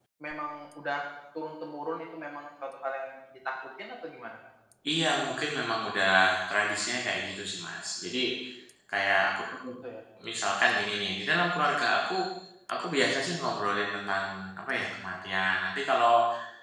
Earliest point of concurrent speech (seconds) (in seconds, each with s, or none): none